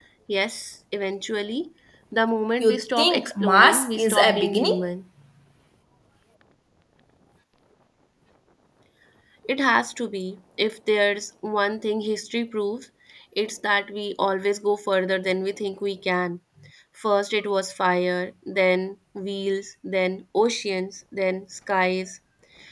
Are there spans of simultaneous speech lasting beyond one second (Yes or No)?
Yes